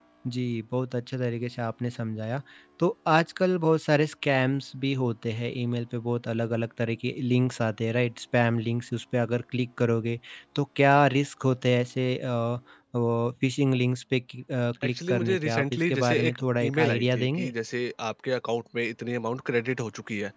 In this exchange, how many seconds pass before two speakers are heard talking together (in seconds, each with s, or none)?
14.9 s